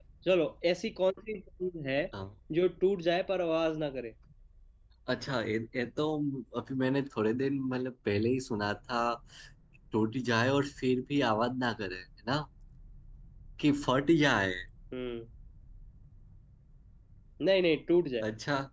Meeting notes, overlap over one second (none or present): none